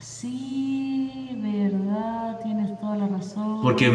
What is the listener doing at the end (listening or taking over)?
taking over